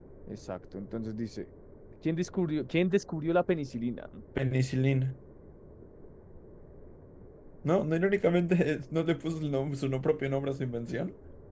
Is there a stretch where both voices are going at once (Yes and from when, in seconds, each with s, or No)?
No